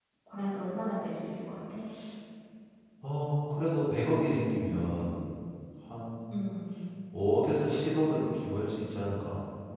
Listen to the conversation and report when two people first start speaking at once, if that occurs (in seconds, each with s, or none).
none